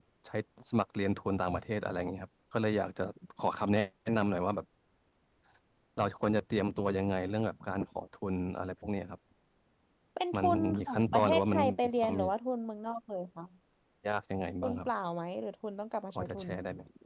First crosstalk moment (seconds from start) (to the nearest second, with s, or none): 10 s